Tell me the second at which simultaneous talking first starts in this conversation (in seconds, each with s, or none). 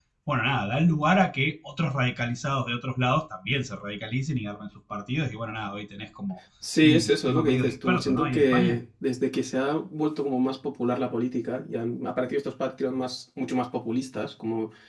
6.8 s